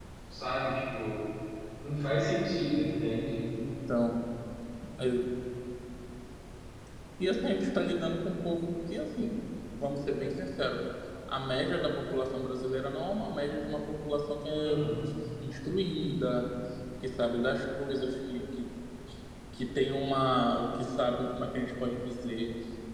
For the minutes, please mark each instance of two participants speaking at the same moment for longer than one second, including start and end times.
none

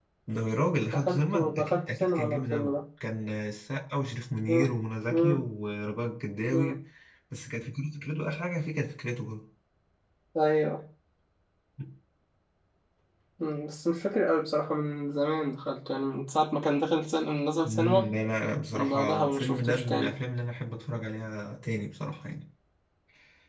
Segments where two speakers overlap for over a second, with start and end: 0.9-2.7, 18.7-20.1

